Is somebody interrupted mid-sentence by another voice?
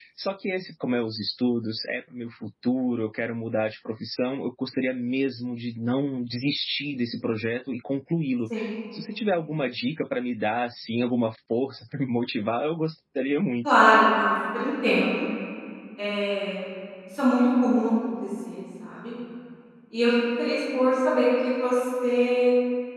No

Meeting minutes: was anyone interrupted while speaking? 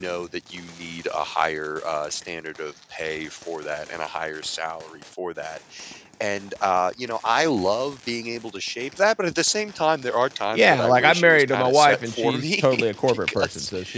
Yes, from 10.5 s

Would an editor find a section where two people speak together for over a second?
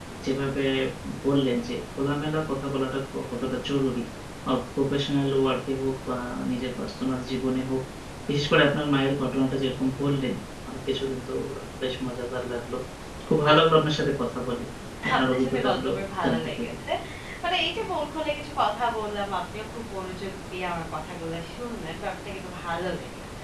Yes, from 15.2 s

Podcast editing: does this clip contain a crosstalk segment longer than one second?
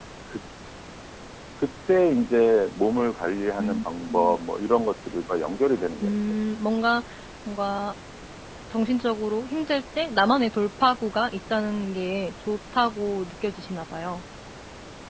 No

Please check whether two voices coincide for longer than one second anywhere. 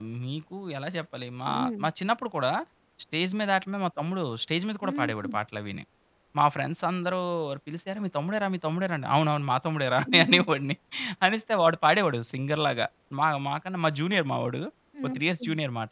No

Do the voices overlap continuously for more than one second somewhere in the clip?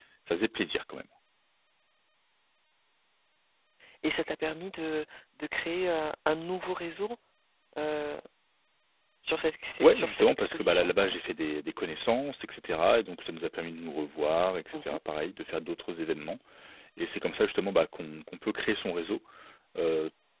Yes, from 9.8 s

